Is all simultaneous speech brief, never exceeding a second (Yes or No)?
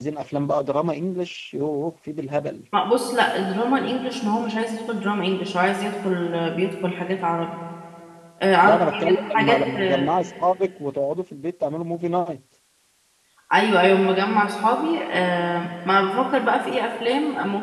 No